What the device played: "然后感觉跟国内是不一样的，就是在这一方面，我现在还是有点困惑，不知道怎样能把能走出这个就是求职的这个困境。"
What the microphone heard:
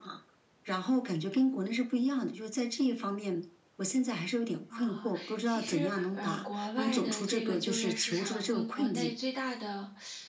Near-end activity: present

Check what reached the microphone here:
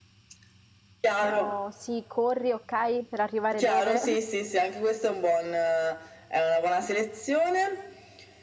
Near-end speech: present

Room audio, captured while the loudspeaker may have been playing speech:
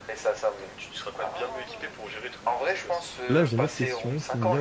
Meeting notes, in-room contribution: present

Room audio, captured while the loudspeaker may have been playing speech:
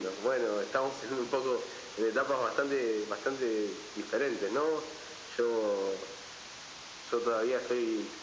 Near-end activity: none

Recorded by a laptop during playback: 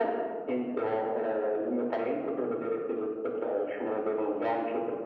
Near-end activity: none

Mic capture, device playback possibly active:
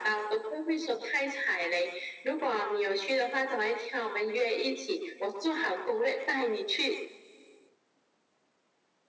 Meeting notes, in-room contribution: none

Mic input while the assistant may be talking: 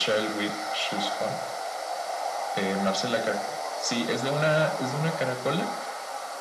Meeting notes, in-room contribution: none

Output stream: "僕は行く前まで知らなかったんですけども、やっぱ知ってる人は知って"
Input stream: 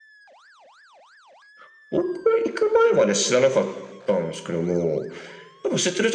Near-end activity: none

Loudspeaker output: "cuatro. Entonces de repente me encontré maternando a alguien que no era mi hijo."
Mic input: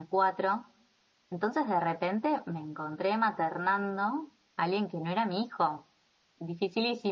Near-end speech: none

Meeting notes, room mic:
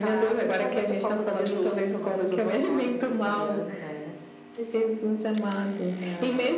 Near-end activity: none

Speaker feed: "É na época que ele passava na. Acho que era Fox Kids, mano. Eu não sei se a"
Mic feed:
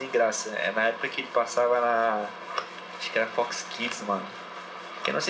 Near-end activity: none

